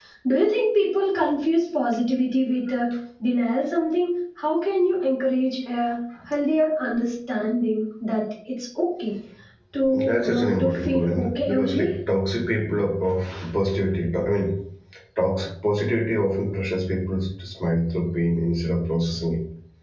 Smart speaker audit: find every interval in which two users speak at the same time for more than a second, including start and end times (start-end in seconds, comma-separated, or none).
9.9-11.9